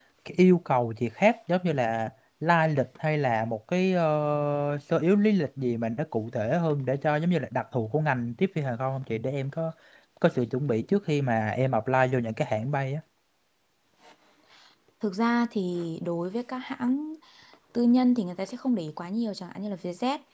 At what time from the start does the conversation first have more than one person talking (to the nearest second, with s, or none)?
none